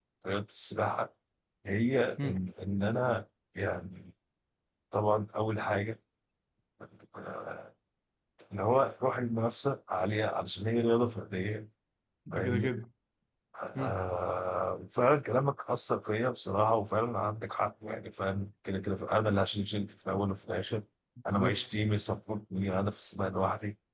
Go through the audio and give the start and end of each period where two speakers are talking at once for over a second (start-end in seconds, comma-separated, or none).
none